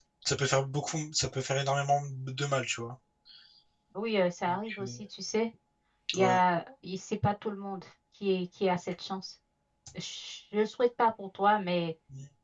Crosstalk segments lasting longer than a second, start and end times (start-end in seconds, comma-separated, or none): none